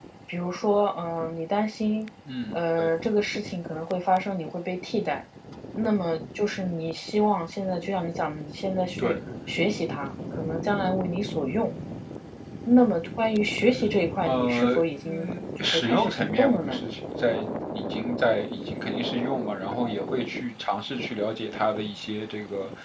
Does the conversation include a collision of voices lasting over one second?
Yes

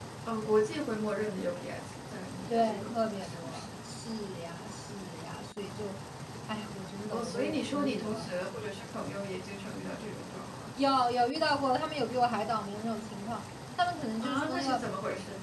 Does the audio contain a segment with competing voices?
Yes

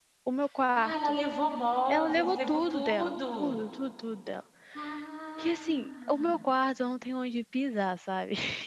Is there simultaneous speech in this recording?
Yes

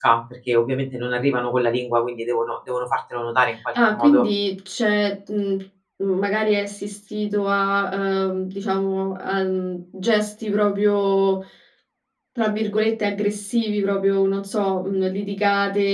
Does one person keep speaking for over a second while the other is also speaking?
No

